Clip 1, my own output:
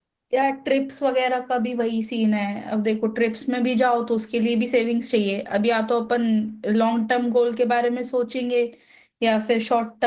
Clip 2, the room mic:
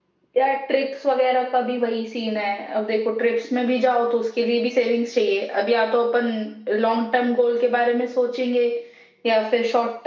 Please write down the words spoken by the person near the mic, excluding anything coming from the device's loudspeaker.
none

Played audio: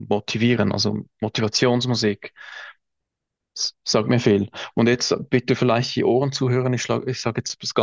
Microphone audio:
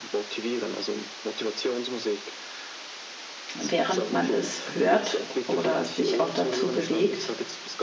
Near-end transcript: während man es hört oder sich auch dazu bewegt.

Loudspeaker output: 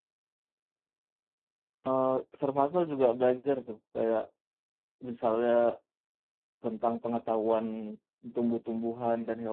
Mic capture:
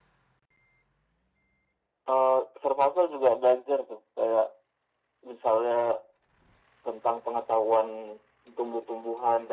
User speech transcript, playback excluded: none

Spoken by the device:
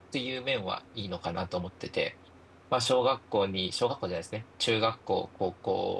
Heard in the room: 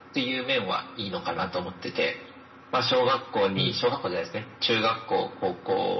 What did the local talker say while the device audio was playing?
うん。

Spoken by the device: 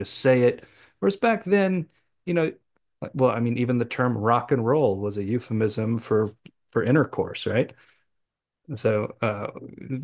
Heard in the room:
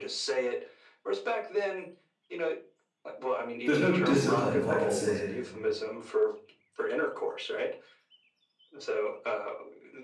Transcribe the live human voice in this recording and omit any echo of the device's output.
There's no discipline, if I could say it

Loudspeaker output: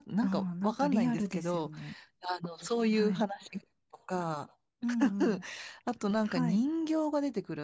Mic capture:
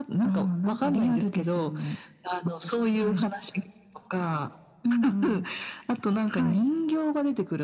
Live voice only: none

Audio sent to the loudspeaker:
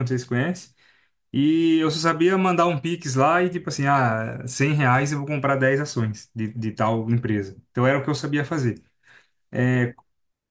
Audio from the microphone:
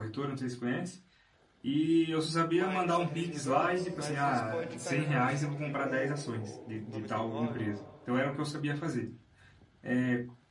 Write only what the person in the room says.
mas, cento e três mil dólares, mas às vezes pode cair pra 101 ou noventa e nove

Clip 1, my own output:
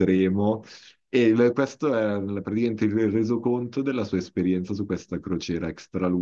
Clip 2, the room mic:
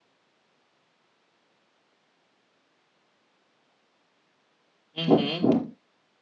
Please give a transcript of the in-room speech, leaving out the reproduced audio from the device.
Mh-mh.

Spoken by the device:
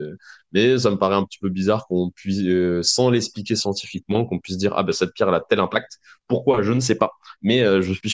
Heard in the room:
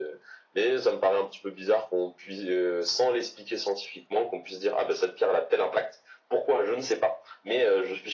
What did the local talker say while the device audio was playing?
none

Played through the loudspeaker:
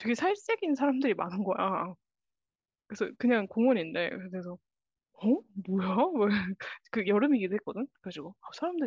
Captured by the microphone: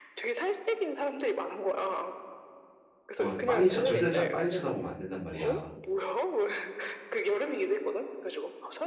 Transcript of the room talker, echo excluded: 어, 빤히 쳐, 절대 짜- 빤히 쳐다보면 안 된단 말이야.

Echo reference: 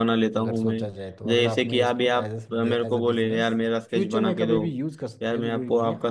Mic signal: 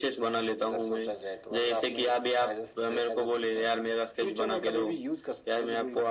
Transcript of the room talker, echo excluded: none

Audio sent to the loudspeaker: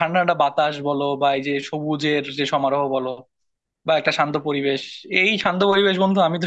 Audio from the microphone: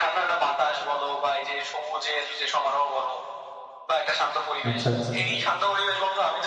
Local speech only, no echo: আচ্ছা আচ্ছা

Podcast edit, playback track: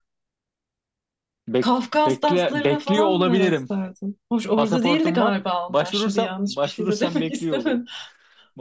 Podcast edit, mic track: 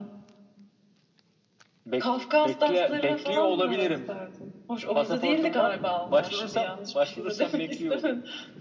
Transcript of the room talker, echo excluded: none

